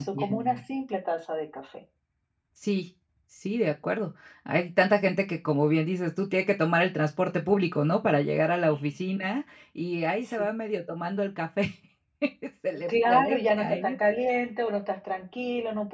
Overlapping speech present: Yes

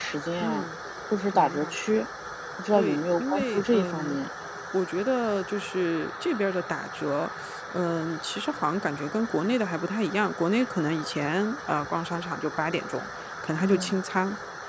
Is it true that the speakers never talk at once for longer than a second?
No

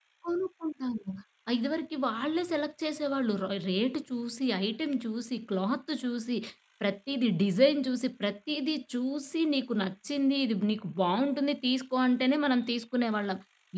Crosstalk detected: No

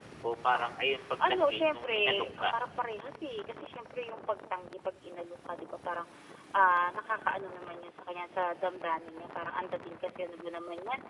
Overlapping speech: Yes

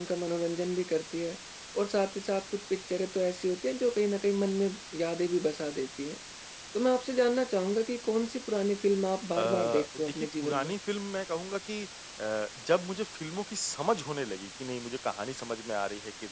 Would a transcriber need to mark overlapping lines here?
Yes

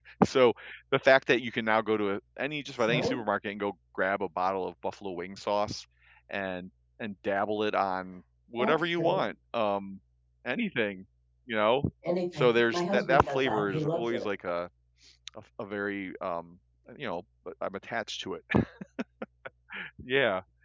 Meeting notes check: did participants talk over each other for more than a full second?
Yes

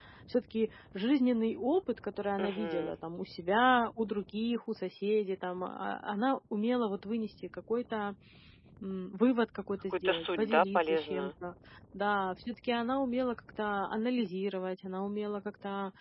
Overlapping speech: Yes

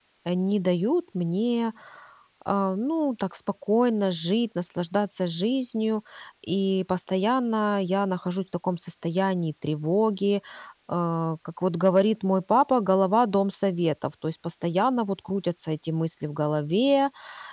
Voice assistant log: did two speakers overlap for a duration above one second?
No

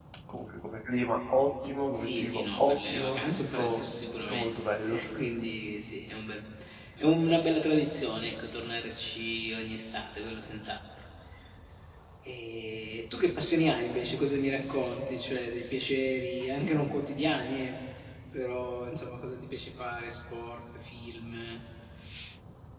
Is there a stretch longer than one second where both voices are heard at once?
Yes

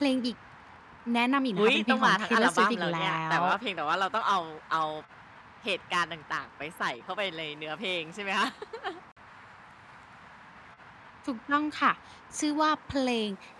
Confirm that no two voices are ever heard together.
No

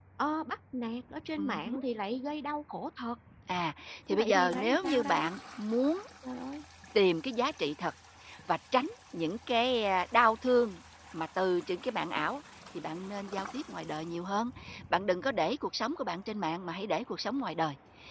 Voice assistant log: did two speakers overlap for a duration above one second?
Yes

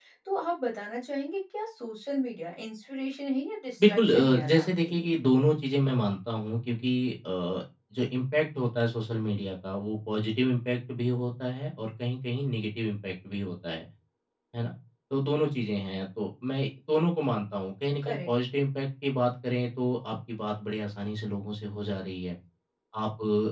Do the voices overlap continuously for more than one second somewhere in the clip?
Yes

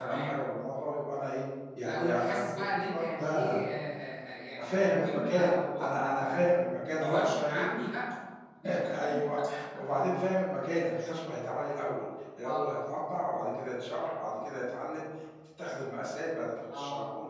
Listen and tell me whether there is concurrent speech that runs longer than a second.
Yes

